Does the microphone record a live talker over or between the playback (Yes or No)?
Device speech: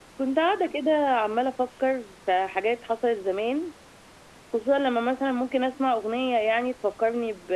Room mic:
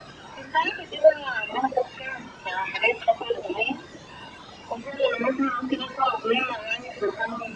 No